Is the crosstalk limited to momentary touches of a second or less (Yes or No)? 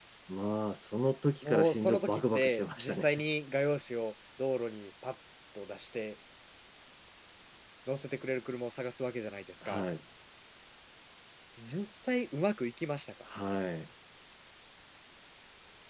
No